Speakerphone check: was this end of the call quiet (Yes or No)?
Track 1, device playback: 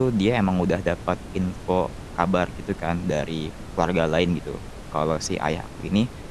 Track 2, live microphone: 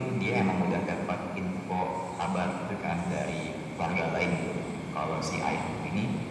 Yes